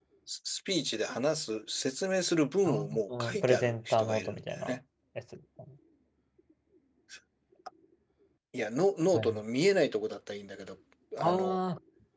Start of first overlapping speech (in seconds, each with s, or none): 2.6 s